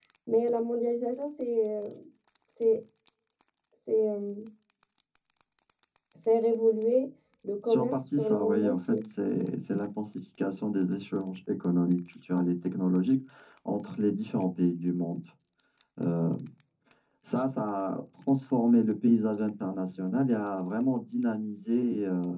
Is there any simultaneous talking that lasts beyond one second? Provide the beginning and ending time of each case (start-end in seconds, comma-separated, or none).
7.7-8.9